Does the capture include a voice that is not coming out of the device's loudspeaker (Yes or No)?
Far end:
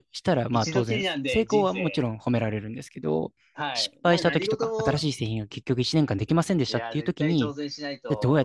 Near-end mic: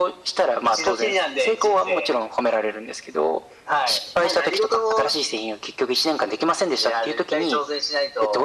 No